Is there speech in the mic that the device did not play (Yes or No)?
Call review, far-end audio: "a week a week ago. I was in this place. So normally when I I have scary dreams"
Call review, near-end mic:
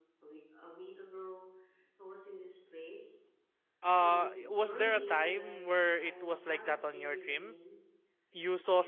Yes